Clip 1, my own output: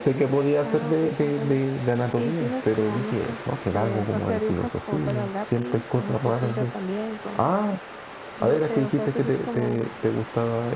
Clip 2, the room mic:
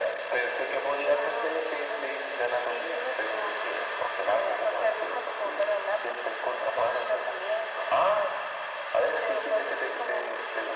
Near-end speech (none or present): none